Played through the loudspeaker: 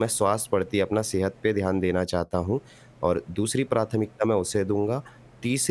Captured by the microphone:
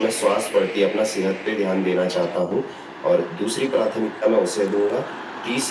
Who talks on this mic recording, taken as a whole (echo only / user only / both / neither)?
echo only